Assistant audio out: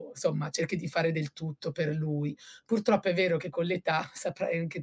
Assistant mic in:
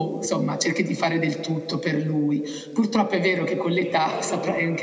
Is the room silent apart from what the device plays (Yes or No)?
No